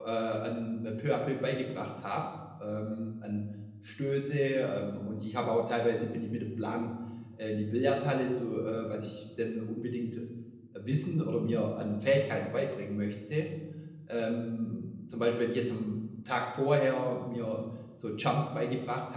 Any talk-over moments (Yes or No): No